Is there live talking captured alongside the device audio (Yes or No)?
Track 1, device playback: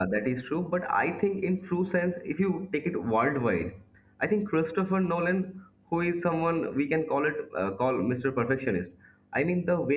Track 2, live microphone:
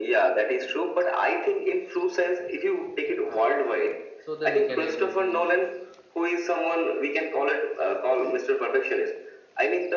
Yes